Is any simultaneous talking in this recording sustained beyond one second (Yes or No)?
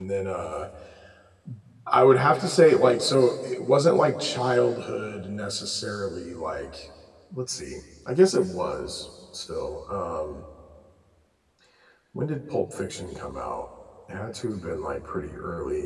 No